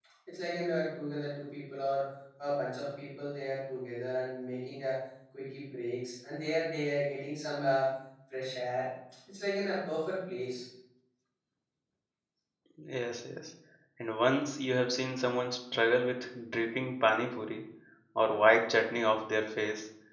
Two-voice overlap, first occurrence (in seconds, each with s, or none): none